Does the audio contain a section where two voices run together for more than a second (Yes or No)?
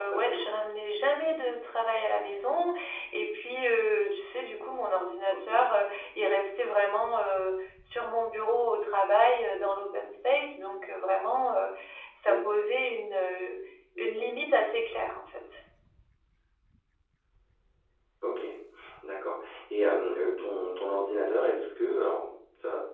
No